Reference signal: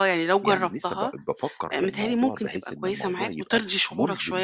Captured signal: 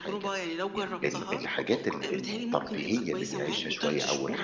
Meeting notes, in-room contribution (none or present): present